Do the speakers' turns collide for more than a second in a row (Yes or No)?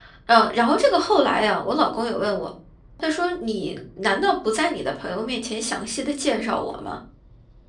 No